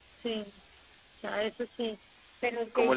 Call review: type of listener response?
taking over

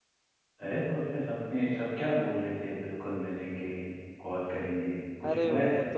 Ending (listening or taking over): taking over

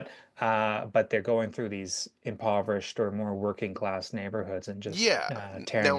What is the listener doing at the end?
taking over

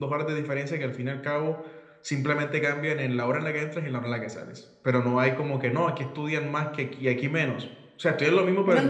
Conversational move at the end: taking over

